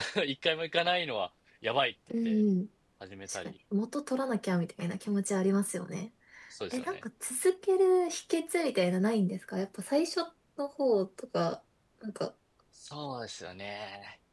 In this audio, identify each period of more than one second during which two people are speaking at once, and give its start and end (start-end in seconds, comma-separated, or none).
none